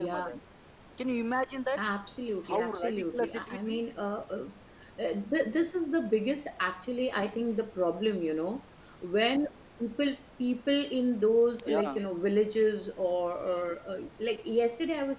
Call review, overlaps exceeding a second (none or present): present